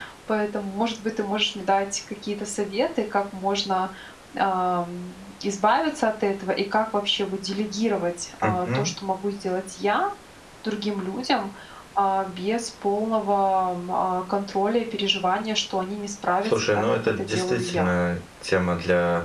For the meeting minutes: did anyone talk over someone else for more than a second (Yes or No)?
Yes